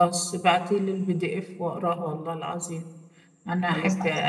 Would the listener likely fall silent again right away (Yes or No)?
Yes